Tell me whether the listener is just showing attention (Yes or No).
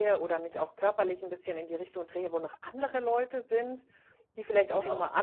Yes